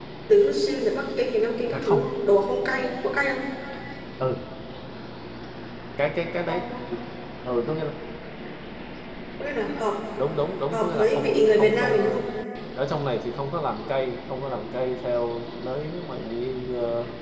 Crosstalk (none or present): present